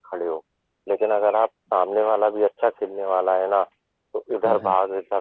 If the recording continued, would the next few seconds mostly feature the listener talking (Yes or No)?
No